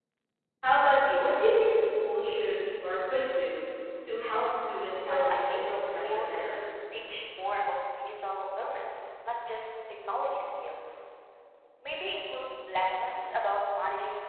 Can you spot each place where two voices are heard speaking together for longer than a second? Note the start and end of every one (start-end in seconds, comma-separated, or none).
5.1-6.6